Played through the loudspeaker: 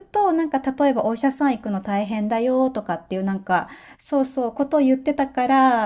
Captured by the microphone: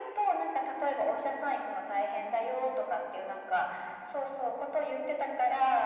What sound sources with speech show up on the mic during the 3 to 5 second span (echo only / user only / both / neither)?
echo only